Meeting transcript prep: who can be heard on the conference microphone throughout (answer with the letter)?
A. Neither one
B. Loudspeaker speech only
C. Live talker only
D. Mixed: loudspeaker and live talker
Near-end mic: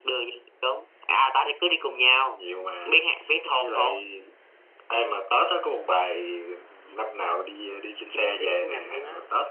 D